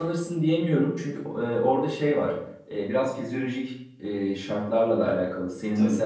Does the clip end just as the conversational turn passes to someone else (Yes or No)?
No